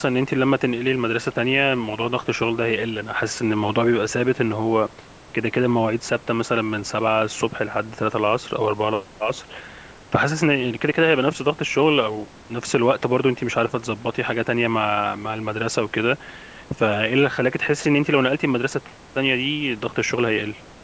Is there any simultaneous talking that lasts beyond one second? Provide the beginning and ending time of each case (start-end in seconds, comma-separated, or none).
none